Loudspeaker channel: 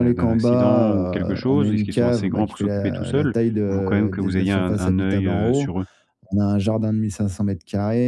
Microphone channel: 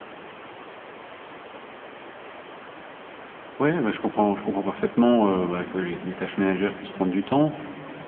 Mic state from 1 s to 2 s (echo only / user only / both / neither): neither